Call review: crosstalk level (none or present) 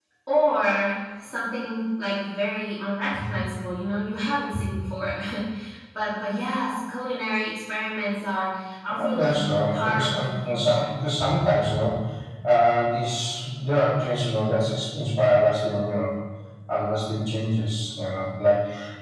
present